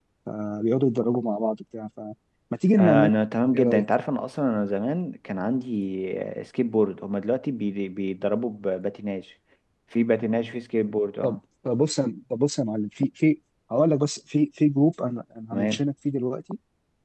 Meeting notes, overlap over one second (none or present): none